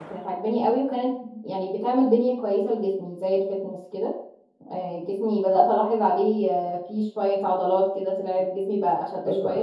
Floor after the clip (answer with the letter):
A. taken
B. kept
A